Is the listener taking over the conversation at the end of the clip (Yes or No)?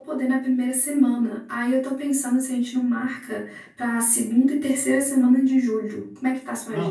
Yes